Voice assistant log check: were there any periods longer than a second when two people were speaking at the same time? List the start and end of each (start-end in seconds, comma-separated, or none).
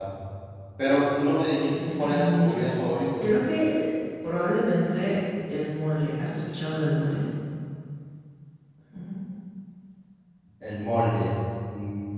1.9-3.3